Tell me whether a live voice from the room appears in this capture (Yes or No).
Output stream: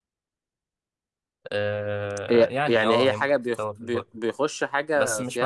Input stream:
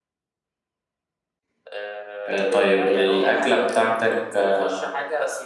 Yes